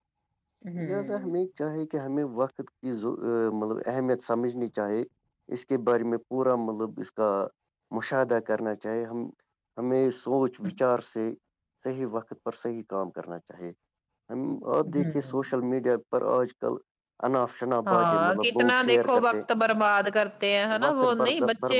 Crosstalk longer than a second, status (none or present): present